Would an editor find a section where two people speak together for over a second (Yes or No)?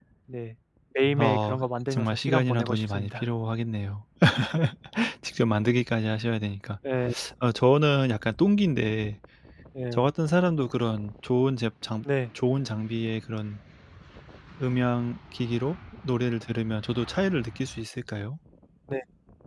Yes